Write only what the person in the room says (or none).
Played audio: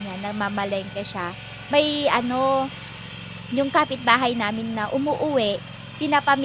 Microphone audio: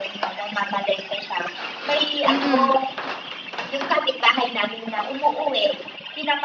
Mm.